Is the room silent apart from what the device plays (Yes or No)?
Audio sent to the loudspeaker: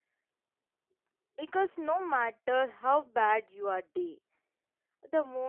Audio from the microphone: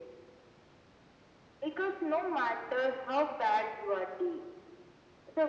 Yes